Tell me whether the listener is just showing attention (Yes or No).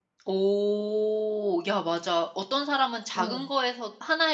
Yes